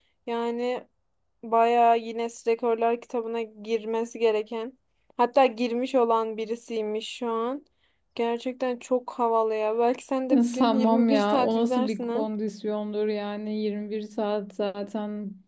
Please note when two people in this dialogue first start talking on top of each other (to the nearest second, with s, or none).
10 s